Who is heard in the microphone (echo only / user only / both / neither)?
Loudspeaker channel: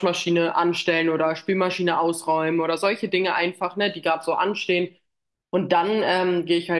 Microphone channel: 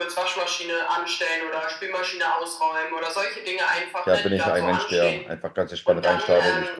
both